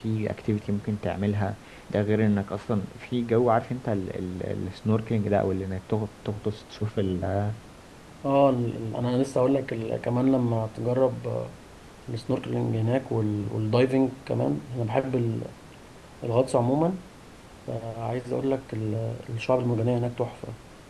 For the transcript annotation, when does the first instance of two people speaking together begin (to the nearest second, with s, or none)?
none